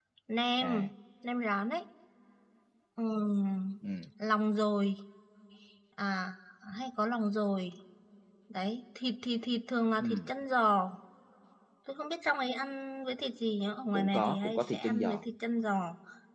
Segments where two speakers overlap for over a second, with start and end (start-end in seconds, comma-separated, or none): 13.9-15.2